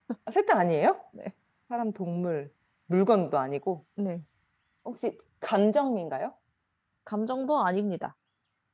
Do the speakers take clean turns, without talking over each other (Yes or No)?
Yes